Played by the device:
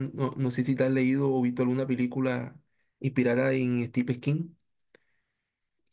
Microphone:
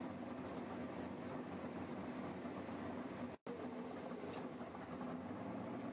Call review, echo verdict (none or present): none